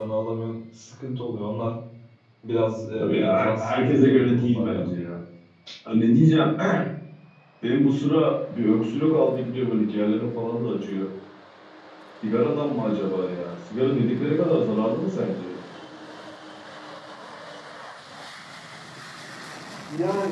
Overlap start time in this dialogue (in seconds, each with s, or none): 3.0 s